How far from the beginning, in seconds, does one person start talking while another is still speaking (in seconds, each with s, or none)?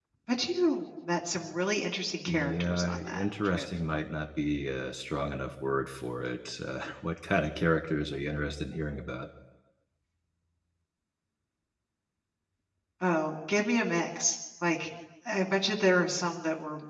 2.3 s